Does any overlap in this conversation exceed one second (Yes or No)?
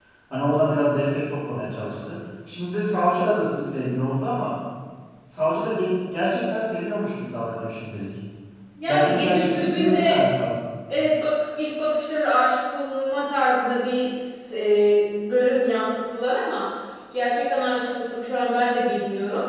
Yes